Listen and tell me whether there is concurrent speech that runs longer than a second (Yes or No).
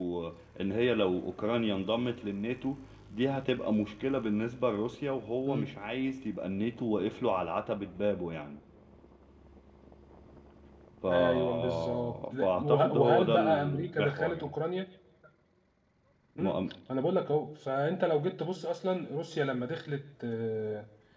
Yes